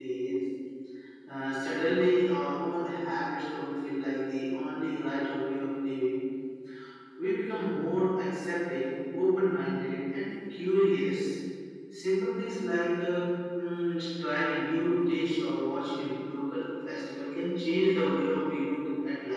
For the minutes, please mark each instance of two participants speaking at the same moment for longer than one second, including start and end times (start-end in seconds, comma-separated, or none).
none